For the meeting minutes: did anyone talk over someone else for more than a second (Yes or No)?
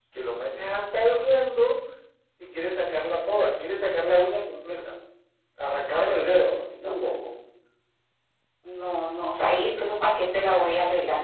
No